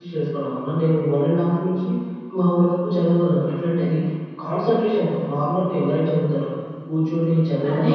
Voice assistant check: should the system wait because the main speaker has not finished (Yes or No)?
No